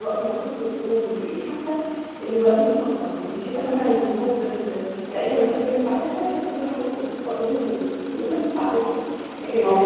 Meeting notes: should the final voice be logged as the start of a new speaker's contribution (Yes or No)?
No